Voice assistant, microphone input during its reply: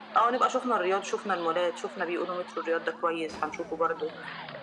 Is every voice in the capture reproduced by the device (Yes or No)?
Yes